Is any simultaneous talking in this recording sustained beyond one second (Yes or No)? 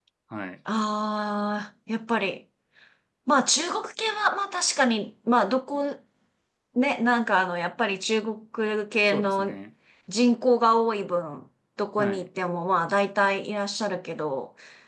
No